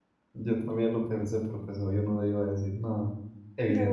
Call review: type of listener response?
taking over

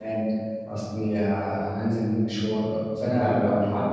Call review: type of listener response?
listening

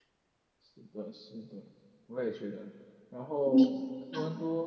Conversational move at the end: listening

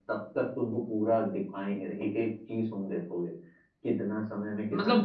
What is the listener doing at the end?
taking over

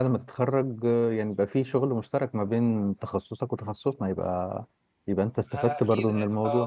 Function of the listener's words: taking over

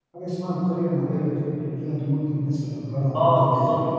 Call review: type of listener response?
taking over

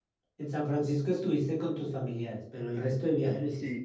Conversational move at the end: taking over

